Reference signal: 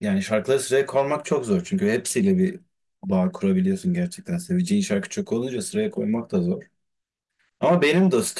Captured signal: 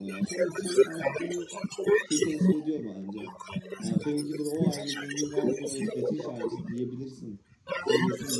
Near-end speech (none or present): present